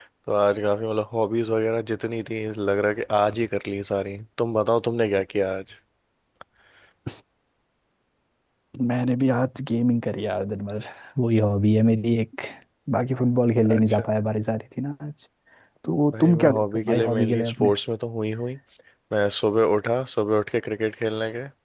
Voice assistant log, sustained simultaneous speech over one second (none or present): present